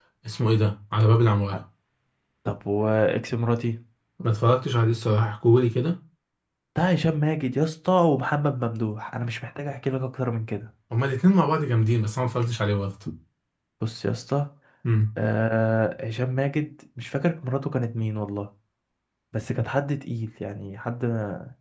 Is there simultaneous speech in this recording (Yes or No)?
No